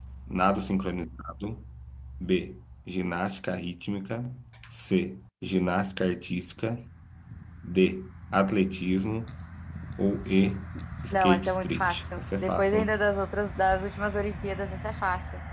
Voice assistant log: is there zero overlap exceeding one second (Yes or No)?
No